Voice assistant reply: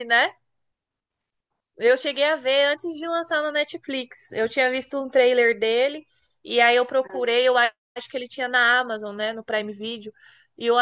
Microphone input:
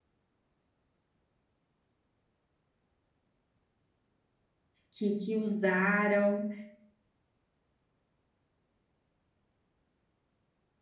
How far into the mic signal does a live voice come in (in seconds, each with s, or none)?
4.9 s